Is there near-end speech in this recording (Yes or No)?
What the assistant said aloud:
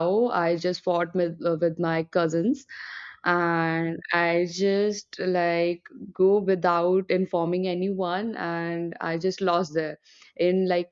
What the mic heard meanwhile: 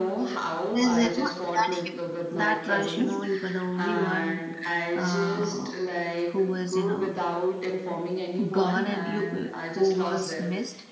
Yes